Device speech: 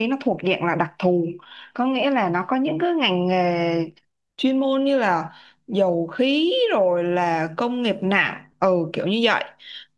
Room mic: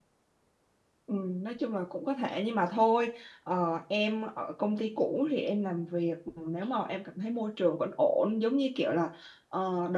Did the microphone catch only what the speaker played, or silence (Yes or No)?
No